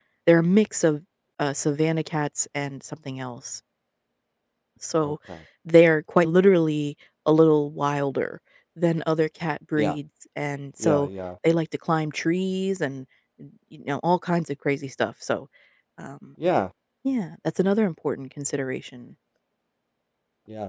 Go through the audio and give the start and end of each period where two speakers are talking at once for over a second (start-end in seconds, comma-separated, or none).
none